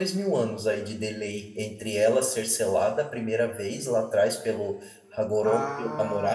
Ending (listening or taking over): taking over